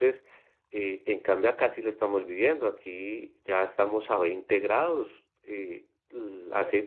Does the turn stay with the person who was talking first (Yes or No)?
Yes